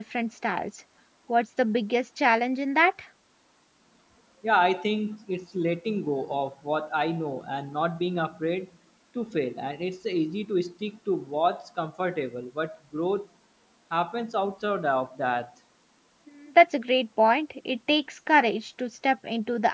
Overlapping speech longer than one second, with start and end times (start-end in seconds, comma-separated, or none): none